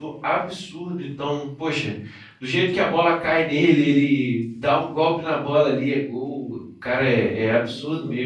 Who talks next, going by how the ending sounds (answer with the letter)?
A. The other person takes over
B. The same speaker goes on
A